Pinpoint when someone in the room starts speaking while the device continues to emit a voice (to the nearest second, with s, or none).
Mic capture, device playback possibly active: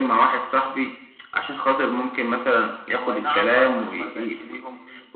3 s